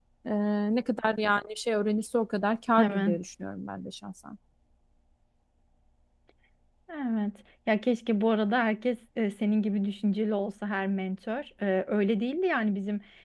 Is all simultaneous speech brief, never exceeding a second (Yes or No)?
Yes